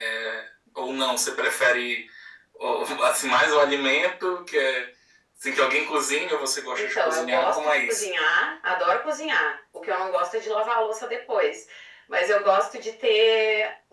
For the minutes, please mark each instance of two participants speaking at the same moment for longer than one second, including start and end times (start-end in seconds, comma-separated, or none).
6.7-8.1